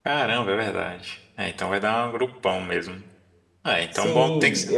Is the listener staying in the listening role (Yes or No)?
No